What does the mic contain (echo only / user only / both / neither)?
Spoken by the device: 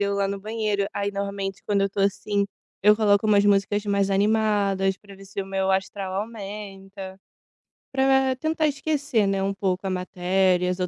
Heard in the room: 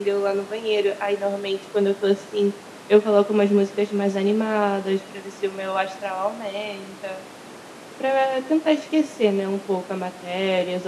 echo only